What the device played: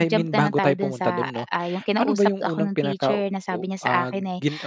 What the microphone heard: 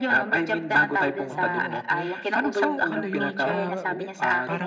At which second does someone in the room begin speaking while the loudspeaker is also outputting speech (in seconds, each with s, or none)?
1.3 s